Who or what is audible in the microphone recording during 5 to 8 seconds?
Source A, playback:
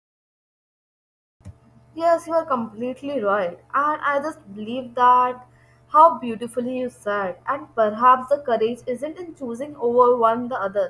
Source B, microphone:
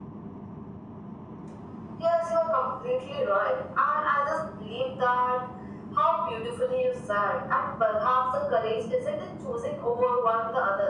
echo only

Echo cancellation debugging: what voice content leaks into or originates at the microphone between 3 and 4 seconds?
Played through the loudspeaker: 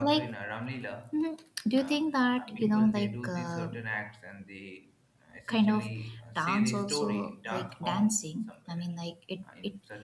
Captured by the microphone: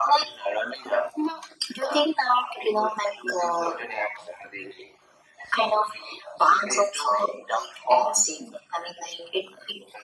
echo only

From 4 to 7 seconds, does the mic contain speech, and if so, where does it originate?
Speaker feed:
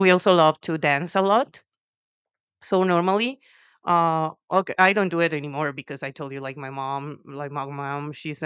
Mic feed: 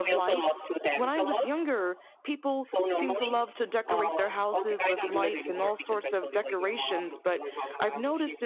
both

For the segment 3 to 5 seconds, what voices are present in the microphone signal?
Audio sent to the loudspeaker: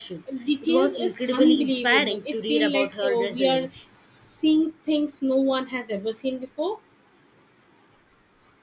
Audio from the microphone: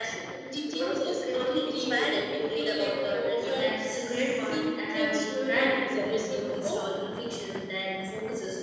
both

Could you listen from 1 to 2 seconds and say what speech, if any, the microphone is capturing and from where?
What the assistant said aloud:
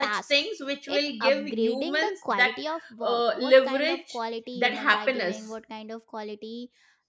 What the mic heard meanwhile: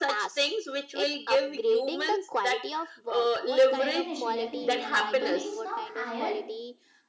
echo only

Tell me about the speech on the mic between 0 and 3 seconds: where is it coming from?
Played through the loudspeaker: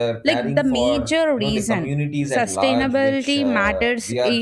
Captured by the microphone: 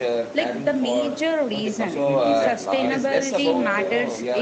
both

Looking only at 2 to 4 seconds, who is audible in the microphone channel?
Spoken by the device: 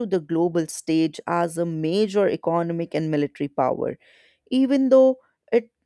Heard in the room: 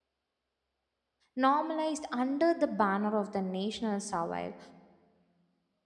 user only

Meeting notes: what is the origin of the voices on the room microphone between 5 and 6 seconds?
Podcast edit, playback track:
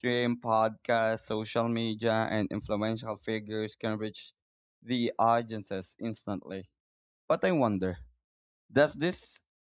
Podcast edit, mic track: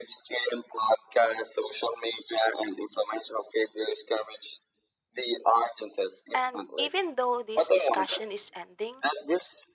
echo only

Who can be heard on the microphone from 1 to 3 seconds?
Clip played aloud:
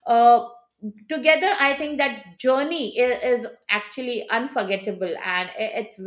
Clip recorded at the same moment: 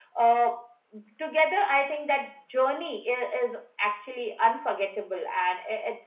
echo only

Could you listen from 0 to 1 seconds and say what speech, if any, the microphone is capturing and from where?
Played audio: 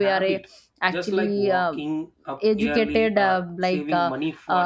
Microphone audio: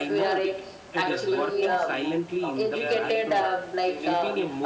both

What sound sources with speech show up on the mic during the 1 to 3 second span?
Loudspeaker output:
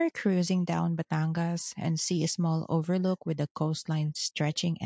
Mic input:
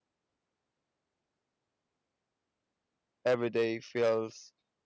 neither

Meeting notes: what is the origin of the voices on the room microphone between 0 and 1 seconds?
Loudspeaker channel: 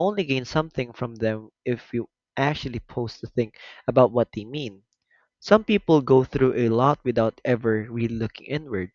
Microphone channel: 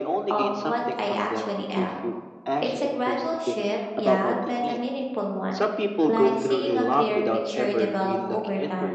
both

